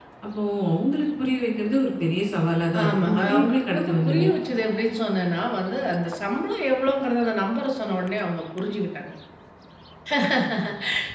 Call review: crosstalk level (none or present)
present